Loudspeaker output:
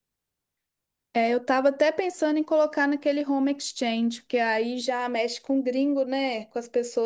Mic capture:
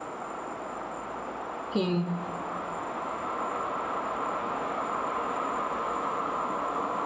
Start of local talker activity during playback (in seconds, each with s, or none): 1.7 s